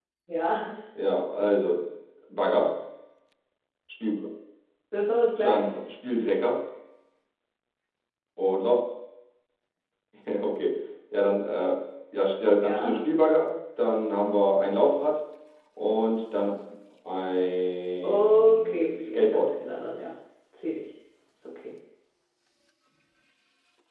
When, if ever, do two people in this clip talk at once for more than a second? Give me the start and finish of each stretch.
18.0-19.5

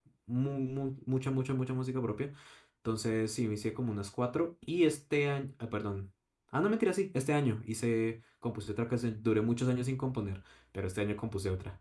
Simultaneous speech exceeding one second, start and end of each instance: none

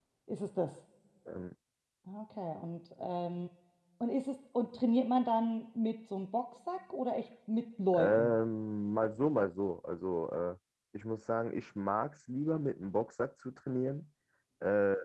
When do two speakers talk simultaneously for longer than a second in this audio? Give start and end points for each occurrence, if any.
none

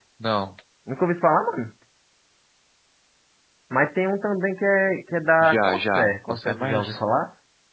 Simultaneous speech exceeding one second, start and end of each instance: 5.4-7.0

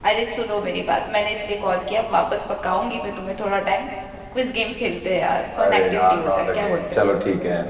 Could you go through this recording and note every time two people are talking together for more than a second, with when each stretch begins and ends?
5.6-7.0

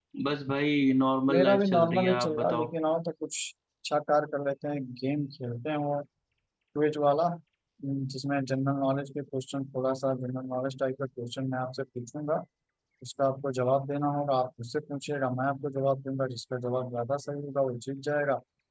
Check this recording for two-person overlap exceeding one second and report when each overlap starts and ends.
1.3-2.7

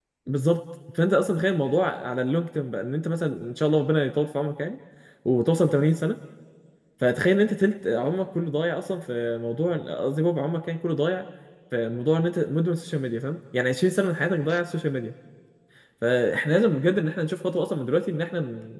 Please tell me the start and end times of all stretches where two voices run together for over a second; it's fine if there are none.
none

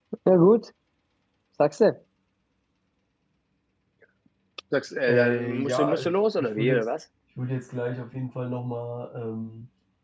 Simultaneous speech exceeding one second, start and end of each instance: 5.1-6.9

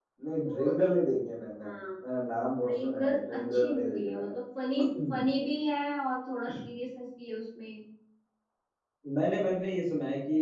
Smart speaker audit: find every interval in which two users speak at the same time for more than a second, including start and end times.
2.6-4.3

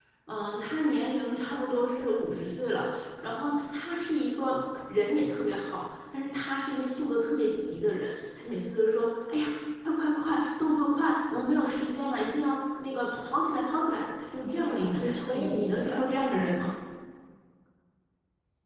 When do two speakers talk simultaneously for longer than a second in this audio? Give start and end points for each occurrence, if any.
14.4-16.1

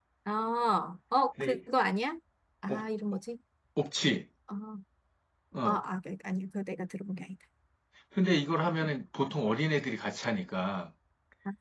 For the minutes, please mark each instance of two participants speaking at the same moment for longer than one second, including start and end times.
none

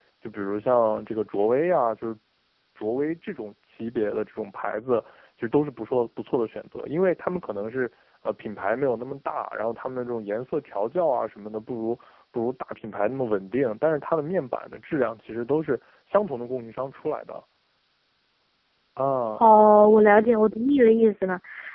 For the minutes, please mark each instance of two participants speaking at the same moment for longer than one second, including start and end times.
none

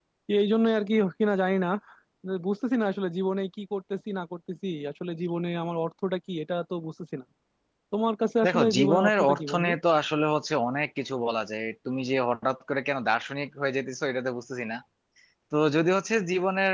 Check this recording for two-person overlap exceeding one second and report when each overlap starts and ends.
8.4-9.7

